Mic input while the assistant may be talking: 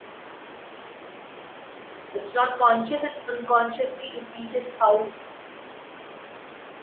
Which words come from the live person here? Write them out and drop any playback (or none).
it's not conscious it's unconsciously it teaches how